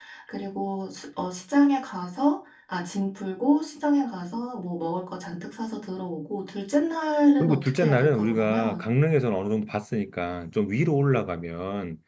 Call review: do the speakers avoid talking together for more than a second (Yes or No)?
No